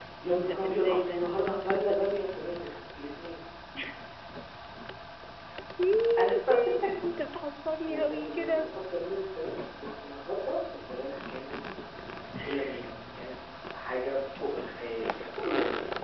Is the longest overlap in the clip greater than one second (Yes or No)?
Yes